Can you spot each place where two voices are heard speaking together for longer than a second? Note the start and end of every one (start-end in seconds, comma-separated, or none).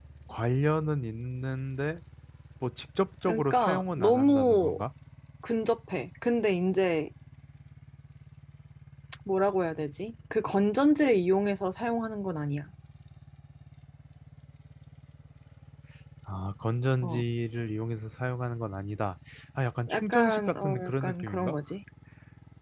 3.2-4.8, 19.9-21.6